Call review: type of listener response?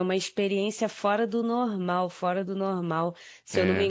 listening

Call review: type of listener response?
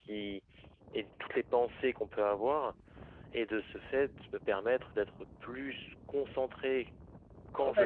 taking over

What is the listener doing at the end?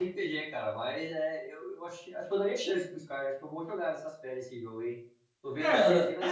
taking over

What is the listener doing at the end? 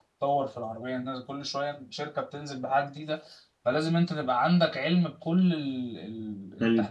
taking over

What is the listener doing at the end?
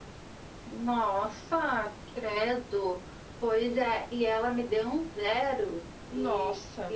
listening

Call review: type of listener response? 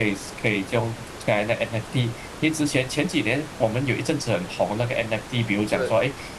listening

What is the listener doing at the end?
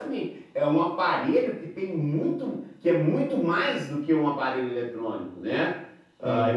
listening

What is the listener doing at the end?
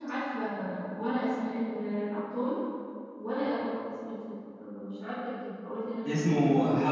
taking over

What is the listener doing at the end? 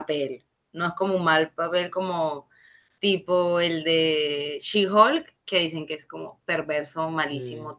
listening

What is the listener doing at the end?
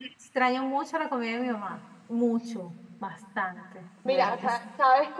taking over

